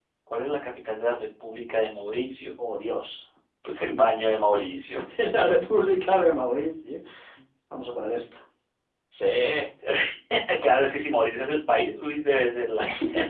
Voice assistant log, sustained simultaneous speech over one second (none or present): none